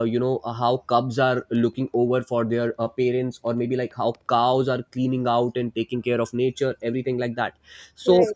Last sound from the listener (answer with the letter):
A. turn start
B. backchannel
B